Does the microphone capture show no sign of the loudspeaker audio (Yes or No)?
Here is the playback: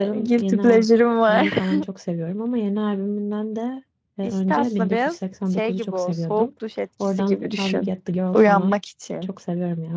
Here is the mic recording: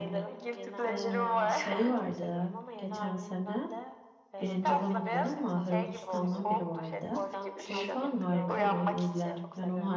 No